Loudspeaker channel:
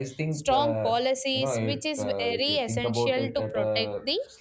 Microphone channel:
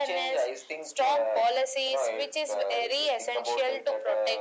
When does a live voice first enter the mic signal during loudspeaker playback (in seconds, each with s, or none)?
none